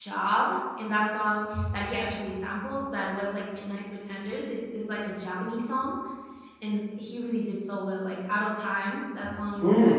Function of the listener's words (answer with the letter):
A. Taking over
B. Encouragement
A